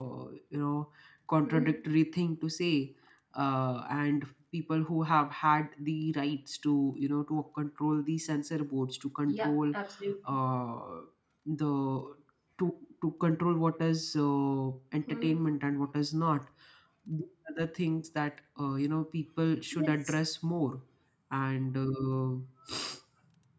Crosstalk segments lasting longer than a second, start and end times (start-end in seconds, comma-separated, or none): none